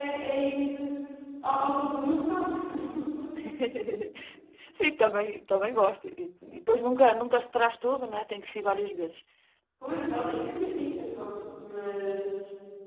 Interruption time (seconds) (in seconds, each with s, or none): none